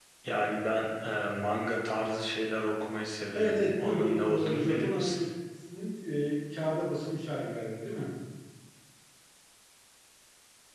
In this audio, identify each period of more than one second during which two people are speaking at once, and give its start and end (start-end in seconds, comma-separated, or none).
3.3-5.2